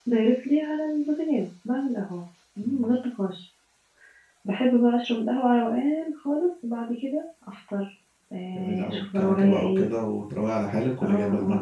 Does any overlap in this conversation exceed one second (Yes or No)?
Yes